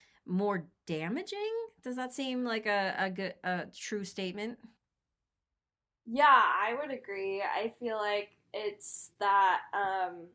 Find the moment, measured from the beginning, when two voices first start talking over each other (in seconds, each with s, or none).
none